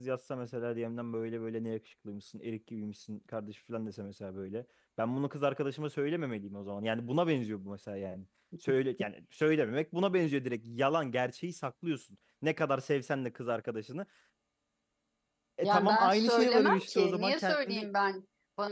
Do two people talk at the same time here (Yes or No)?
Yes